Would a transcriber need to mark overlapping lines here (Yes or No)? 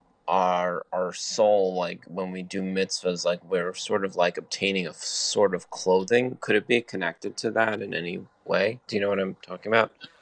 No